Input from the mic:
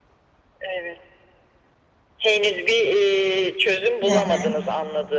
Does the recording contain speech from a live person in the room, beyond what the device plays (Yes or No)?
Yes